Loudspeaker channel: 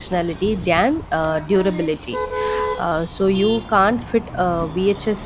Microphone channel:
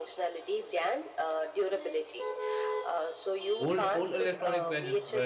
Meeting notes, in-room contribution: present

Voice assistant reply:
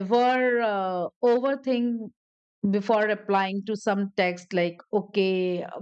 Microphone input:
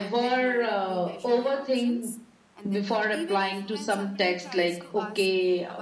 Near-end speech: present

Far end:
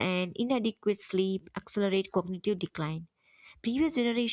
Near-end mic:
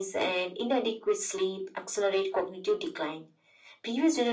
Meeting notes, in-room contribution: none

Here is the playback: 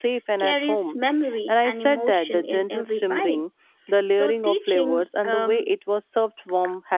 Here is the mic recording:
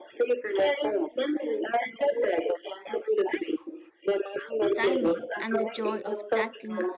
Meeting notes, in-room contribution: present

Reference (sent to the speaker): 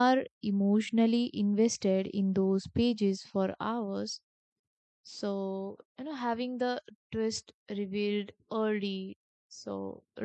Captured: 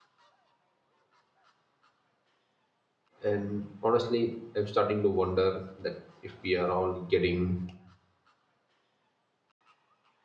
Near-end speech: present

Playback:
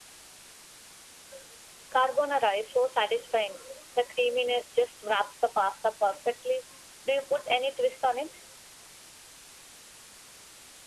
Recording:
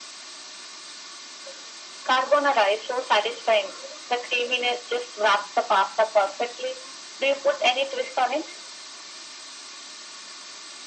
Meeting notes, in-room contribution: none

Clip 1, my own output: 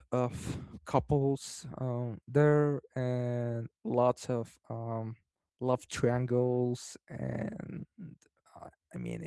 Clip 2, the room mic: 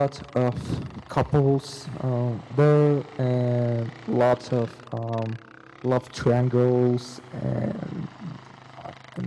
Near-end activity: none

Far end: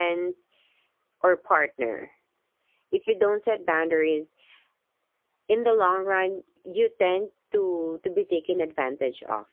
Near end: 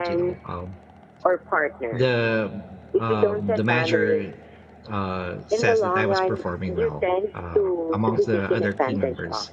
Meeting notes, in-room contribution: present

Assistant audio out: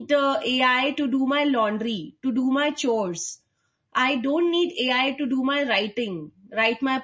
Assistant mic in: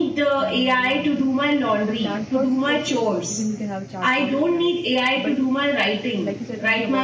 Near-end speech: present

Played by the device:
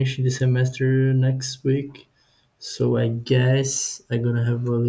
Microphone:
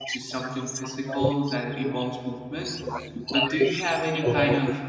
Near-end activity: present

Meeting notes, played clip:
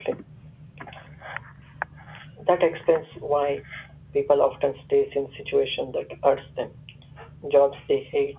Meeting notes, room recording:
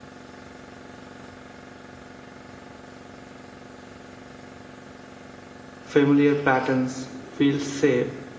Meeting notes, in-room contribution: present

